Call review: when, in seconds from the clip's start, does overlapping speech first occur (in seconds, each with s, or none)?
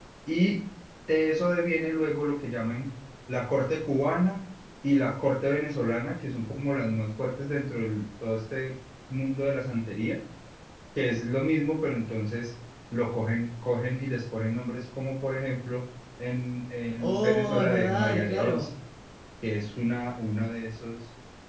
16.9 s